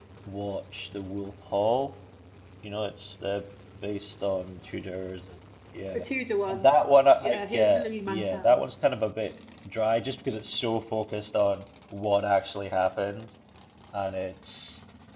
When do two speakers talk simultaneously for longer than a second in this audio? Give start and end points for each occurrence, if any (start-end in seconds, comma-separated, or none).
7.2-8.6